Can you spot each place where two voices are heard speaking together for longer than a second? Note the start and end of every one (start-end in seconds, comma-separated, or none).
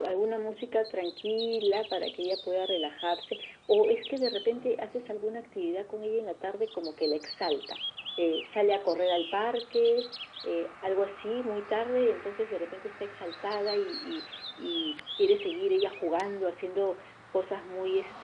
none